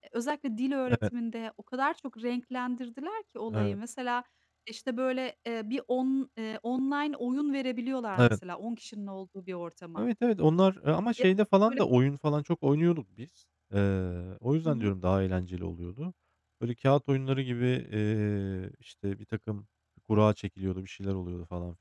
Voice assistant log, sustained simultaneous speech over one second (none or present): none